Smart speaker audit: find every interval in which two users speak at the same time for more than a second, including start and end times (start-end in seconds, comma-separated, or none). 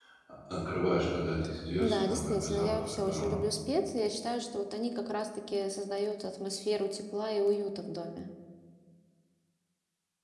1.8-3.4